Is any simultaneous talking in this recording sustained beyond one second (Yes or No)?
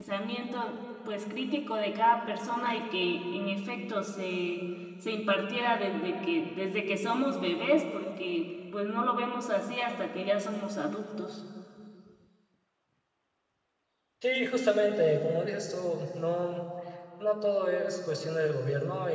No